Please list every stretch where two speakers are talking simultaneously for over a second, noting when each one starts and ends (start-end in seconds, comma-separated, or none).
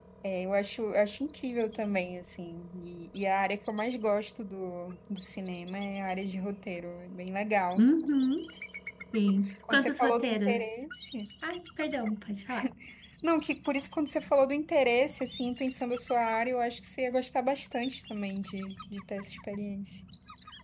9.4-10.7